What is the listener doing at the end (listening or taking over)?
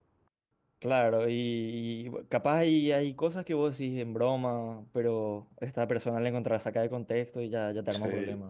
taking over